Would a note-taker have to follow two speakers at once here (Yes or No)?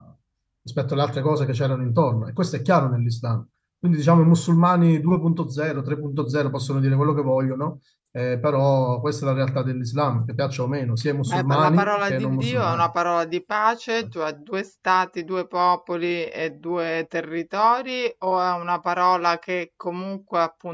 Yes